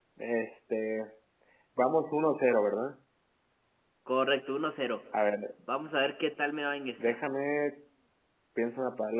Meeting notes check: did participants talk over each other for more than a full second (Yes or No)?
No